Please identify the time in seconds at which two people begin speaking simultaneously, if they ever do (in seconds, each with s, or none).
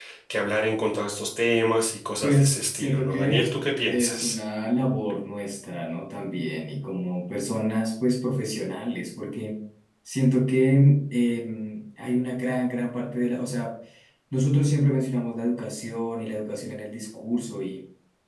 2.2 s